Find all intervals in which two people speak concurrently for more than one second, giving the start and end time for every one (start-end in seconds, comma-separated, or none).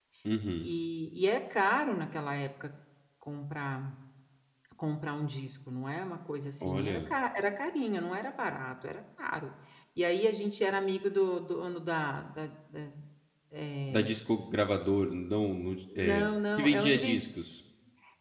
15.9-17.2